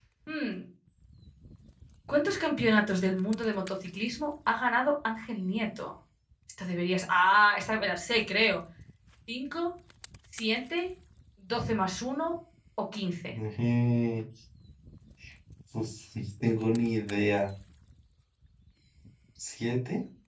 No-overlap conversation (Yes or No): Yes